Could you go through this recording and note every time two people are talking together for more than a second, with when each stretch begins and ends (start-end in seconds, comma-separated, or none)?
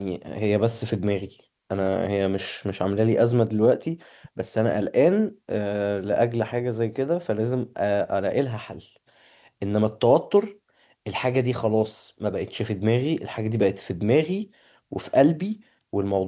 none